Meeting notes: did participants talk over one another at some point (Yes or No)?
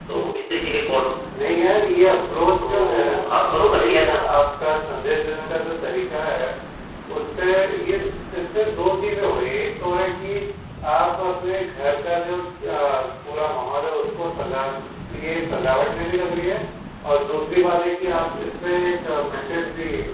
Yes